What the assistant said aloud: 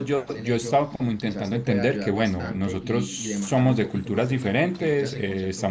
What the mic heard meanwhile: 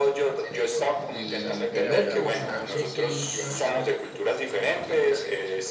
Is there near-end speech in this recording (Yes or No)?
Yes